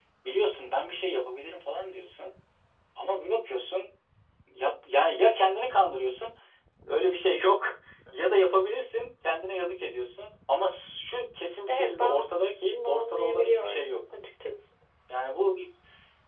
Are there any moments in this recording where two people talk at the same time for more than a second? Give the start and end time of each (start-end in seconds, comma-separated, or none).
12.7-14.0